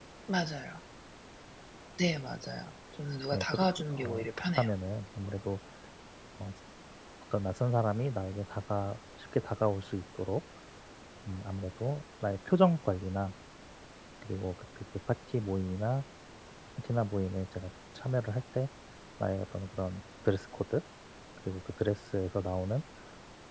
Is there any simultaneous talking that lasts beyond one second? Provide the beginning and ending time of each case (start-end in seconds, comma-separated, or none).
3.3-4.7